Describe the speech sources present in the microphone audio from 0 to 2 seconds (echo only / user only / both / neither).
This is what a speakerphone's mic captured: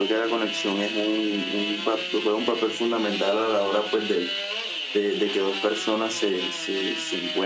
echo only